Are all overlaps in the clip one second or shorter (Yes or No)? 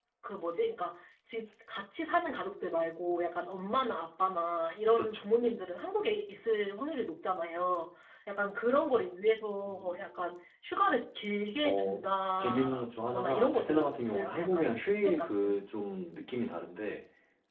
No